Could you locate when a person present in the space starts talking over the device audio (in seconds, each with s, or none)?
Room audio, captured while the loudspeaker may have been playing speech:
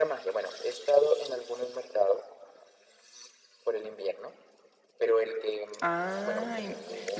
5.8 s